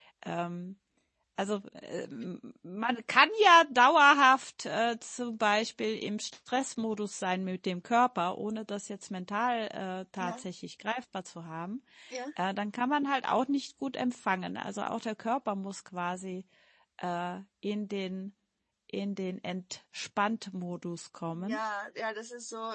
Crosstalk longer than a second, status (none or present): none